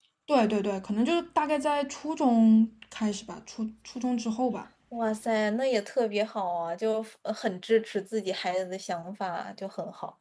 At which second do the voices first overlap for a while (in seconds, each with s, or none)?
none